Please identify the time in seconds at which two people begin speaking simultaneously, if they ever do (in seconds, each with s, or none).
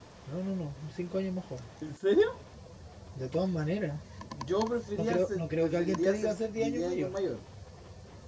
5.0 s